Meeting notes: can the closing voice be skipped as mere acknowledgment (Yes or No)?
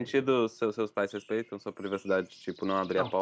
No